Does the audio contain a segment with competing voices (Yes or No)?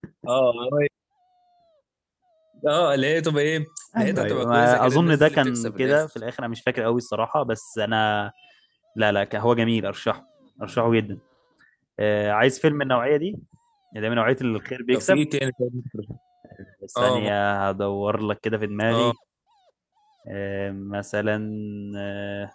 Yes